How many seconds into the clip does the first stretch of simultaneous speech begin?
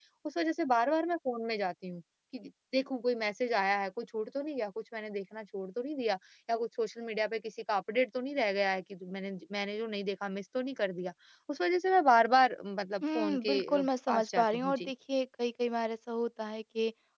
13.0 s

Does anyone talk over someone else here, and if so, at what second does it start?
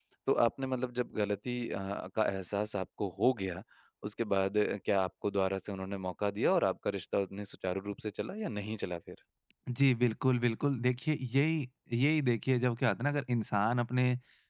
none

